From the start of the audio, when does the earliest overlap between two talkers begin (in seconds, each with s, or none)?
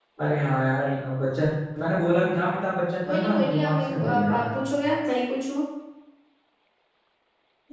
3.1 s